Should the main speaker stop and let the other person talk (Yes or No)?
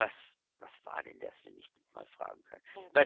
No